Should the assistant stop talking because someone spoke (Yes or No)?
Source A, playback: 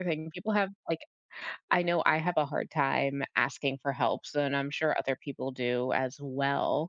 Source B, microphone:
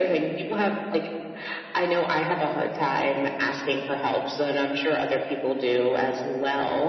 No